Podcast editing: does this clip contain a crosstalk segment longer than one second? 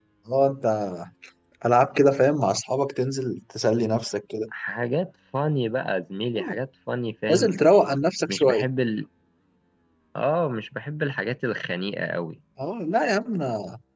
No

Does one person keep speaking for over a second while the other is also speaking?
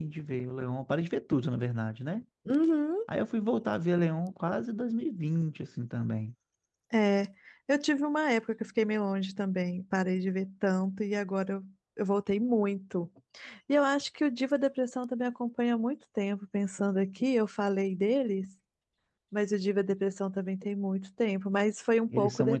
No

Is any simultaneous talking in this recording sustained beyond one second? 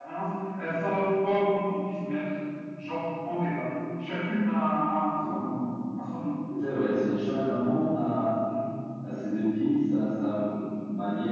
No

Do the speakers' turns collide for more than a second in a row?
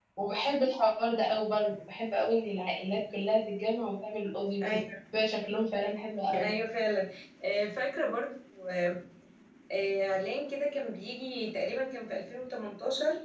No

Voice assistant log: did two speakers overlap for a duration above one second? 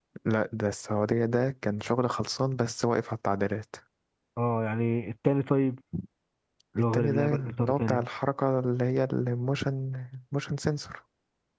Yes, from 6.8 s

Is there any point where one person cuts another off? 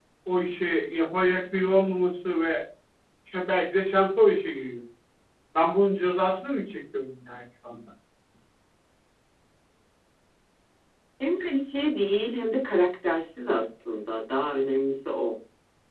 No

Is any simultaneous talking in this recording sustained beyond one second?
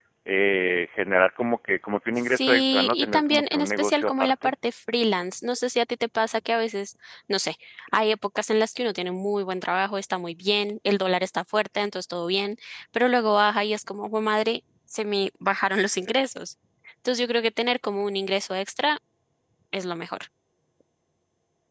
Yes, from 2.3 s

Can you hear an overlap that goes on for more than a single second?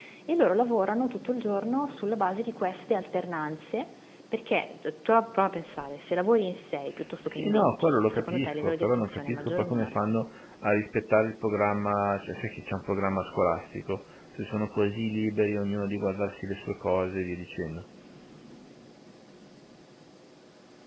Yes, from 7.3 s

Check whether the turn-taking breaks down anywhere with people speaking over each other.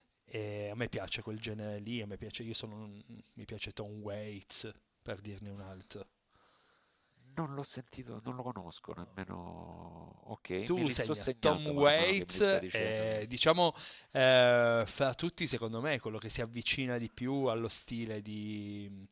Yes, from 10.7 s

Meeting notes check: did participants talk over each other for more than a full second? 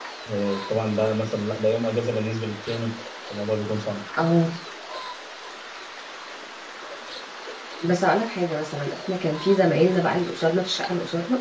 No

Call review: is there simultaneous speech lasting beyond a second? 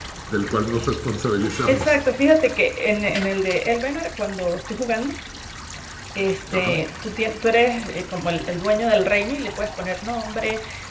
No

